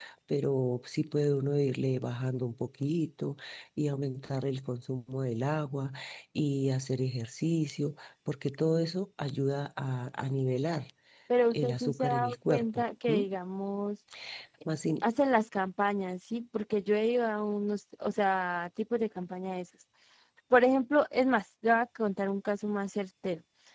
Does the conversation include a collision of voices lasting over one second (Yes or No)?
Yes